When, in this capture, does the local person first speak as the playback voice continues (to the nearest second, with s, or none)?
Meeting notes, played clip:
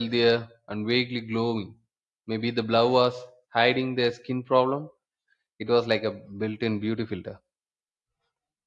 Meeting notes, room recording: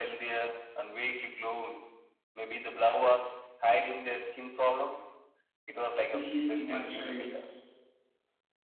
6 s